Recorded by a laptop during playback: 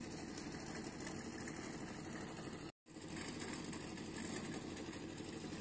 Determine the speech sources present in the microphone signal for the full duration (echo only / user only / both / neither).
neither